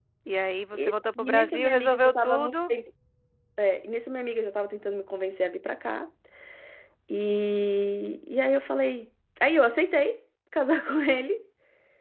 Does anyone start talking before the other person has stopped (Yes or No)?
Yes